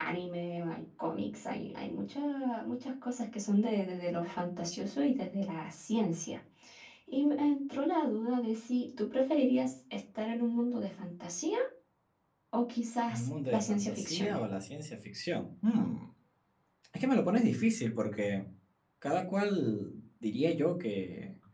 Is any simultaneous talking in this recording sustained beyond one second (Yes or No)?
Yes